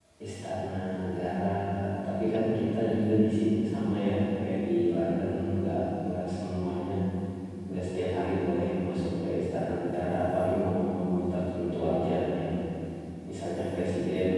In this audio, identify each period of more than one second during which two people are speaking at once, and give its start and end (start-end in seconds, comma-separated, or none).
none